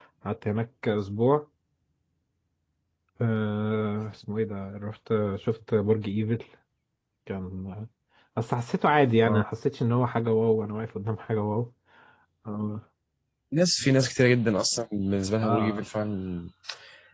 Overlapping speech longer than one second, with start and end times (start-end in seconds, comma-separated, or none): none